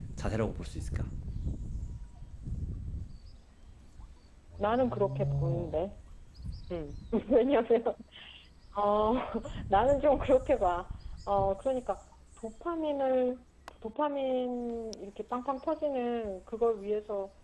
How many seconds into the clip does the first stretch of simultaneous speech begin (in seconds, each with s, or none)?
4.6 s